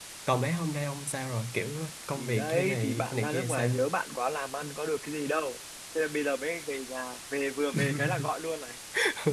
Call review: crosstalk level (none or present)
present